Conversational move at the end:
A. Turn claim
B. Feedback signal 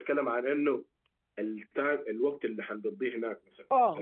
A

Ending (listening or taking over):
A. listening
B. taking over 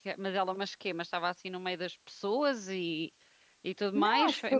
B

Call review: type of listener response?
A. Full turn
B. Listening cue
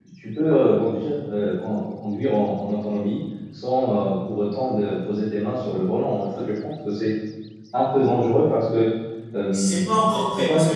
A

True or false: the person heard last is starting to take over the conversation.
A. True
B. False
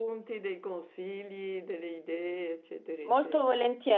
A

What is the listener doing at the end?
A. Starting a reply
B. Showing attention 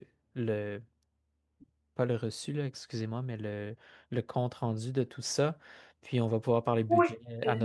A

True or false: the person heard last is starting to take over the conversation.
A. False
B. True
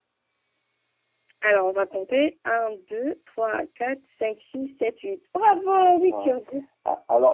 B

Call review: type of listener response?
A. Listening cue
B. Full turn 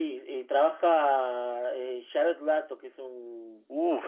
B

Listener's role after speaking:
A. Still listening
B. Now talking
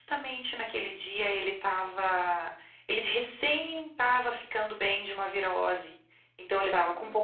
A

